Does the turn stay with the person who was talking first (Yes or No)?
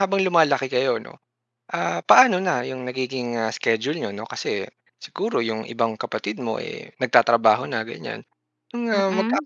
Yes